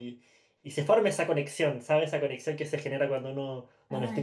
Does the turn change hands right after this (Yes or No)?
No